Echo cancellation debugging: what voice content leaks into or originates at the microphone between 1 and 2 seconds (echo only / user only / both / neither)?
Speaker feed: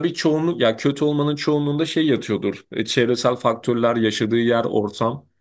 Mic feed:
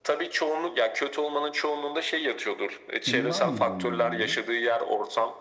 echo only